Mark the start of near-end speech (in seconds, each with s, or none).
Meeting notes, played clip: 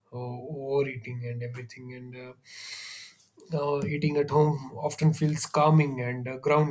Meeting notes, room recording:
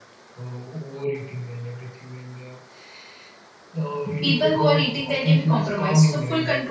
4.2 s